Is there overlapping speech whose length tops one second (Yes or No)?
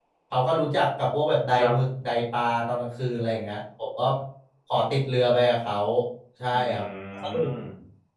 No